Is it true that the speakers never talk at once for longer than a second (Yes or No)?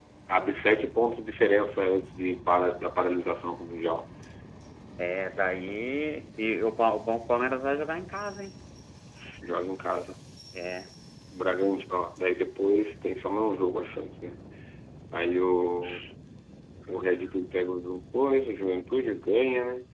Yes